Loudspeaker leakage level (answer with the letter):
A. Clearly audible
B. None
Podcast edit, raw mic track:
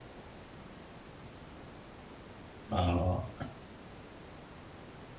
B